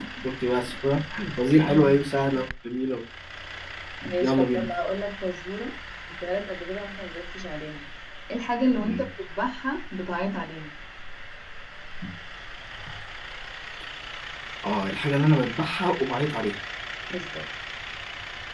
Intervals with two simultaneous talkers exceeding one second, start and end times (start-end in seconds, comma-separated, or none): none